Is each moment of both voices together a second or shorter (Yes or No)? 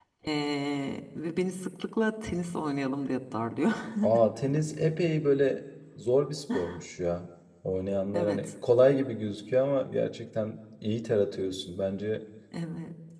Yes